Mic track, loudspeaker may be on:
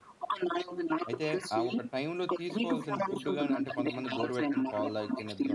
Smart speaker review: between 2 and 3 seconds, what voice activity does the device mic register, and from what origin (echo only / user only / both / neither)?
both